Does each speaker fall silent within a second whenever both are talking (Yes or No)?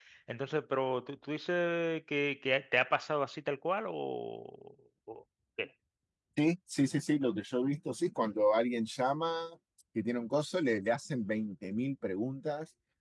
Yes